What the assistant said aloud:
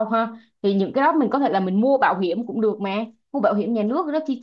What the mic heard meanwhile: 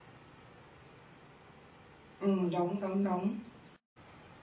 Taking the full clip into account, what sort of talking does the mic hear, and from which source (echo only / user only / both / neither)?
user only